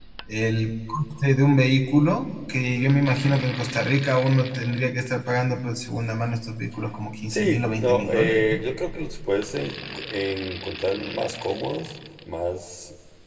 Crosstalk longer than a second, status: present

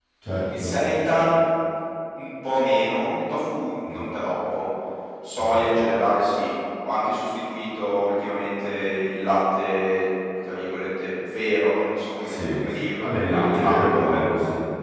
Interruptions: present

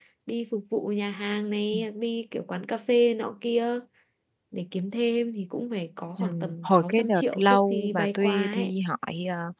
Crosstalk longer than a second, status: present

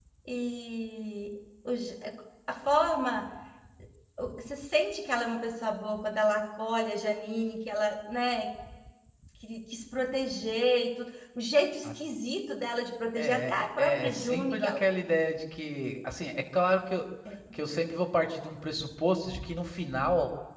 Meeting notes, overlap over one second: present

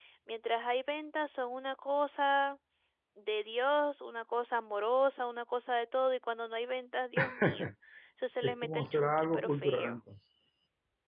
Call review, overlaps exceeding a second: present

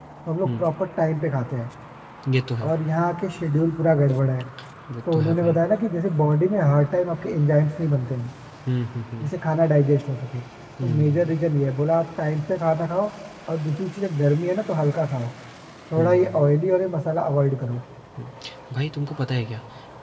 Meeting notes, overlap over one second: none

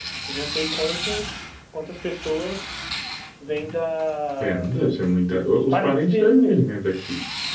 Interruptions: present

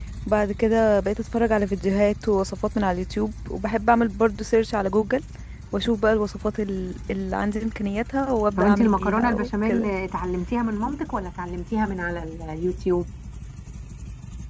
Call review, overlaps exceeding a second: present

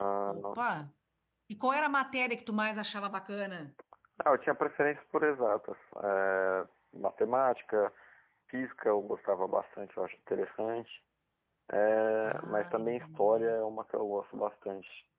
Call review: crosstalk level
present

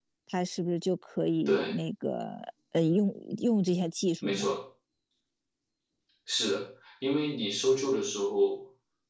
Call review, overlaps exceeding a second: none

